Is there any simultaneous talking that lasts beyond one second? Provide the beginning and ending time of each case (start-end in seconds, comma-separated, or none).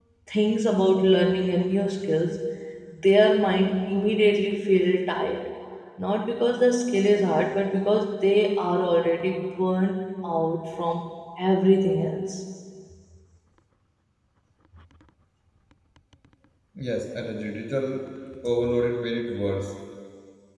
none